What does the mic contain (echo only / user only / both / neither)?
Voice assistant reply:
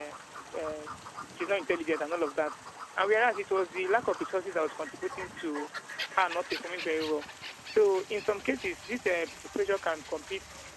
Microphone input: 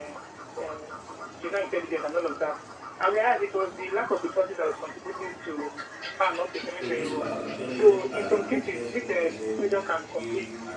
both